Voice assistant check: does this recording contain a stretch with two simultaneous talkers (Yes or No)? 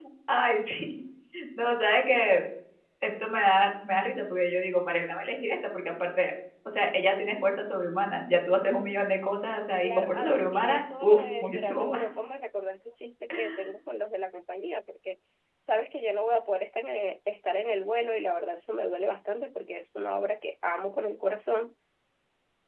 Yes